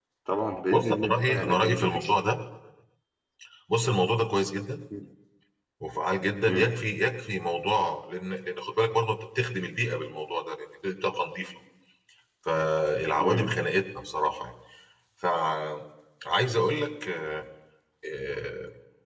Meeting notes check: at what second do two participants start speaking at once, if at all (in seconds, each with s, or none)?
0.7 s